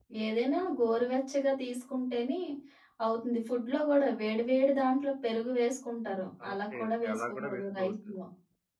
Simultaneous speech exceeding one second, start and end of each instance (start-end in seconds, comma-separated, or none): 6.5-7.9